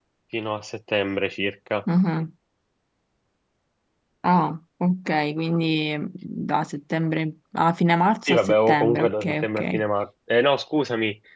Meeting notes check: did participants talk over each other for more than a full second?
Yes, from 8.3 s

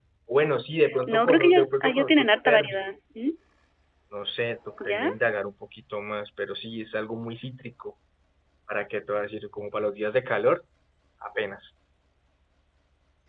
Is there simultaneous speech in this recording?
Yes, from 1.0 s

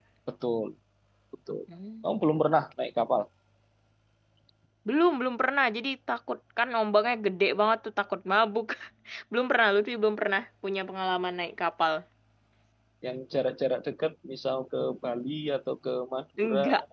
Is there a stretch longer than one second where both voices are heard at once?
No

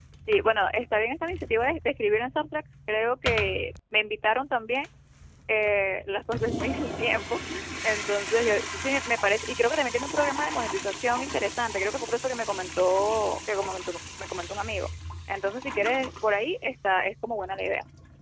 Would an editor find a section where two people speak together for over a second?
No

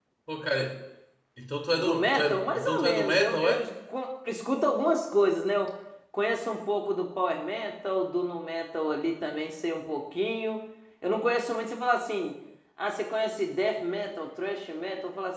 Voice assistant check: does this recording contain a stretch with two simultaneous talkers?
Yes, from 1.8 s

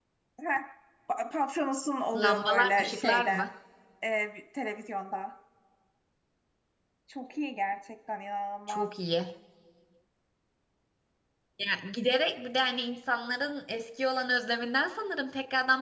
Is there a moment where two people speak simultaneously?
Yes, from 2.1 s

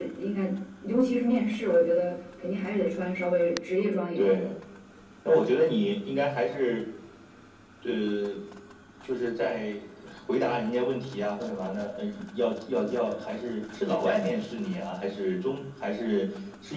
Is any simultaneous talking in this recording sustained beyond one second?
No

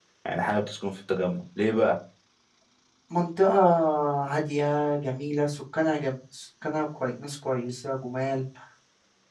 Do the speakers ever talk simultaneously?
No

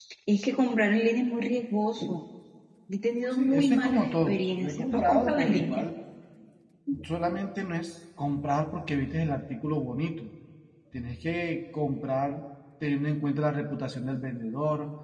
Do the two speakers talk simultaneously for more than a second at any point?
Yes, from 3.4 s

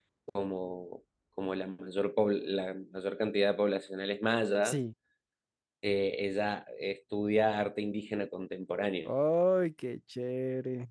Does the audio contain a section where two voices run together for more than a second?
No

